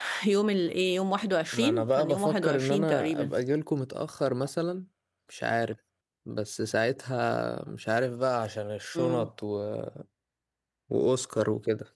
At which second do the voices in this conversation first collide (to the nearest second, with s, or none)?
2 s